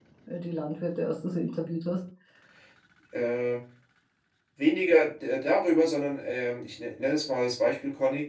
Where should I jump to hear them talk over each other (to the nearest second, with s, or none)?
none